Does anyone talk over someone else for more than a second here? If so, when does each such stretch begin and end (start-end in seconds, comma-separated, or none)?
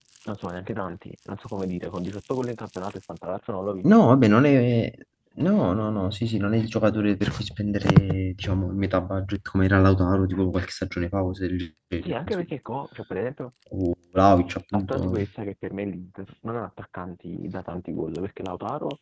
none